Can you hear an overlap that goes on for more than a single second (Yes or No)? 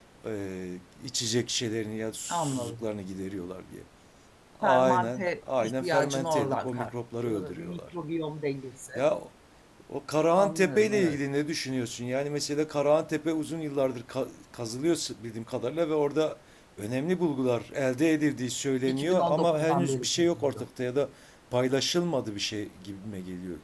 Yes